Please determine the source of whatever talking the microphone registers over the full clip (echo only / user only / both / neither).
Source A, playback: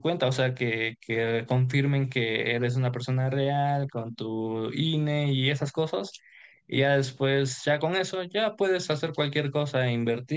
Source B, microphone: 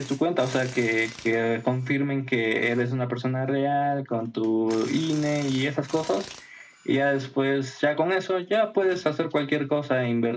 echo only